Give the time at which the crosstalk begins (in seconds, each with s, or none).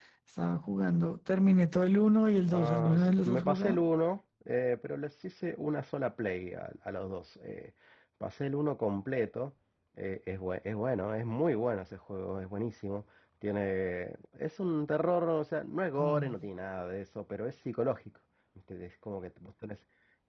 2.5 s